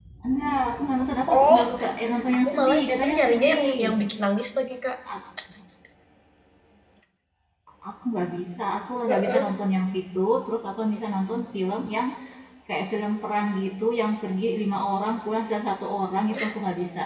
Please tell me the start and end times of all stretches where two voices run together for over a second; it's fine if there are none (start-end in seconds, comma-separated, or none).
2.5-3.8